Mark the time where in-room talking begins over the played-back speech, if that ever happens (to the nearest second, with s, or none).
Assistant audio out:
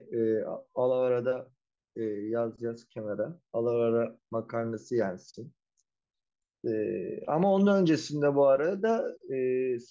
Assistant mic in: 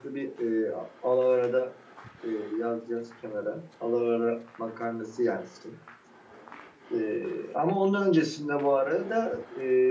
none